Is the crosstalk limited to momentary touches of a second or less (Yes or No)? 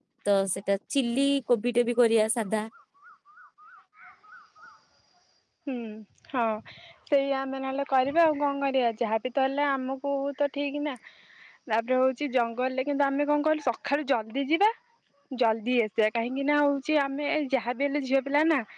Yes